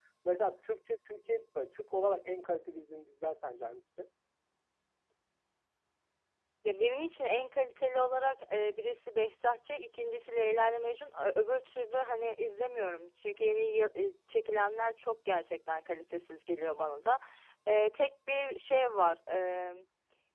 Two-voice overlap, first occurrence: none

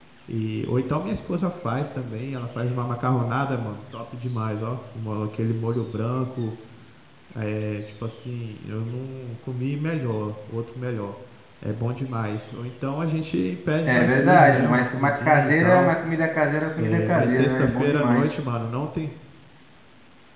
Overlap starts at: 13.9 s

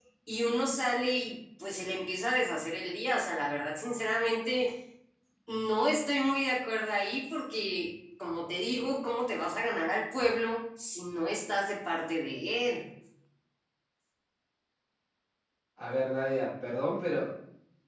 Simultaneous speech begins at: none

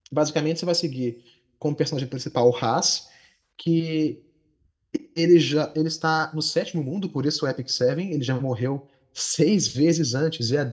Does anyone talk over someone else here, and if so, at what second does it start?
none

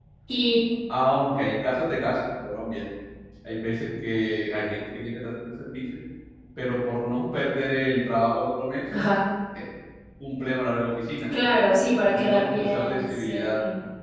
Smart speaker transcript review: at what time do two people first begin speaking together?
12.1 s

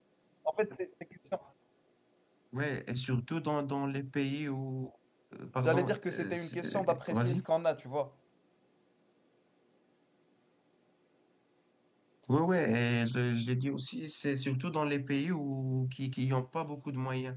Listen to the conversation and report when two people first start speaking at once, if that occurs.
5.6 s

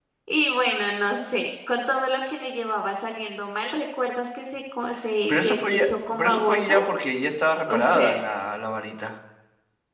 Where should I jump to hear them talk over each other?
5.3 s

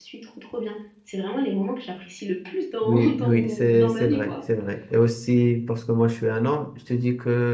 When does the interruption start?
2.8 s

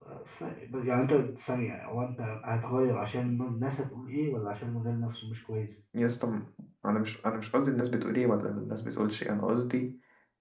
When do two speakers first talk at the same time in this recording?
none

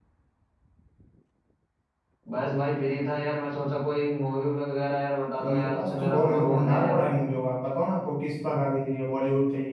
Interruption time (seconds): 5.4 s

